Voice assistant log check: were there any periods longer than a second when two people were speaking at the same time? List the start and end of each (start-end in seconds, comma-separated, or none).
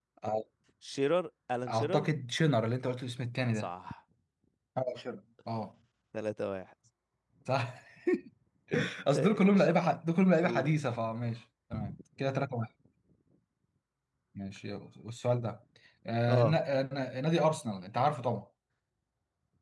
none